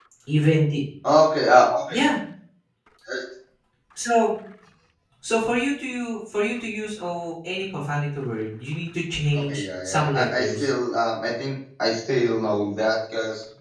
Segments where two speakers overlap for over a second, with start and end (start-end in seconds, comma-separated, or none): 9.3-10.7